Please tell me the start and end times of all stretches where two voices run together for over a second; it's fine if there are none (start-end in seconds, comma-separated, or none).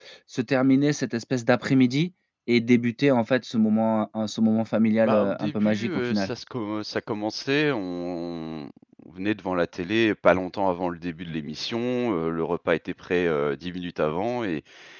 5.1-6.3